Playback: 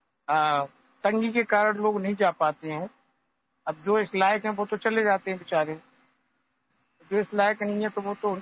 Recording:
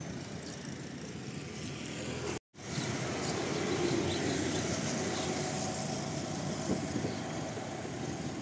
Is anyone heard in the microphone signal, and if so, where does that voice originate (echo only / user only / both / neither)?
neither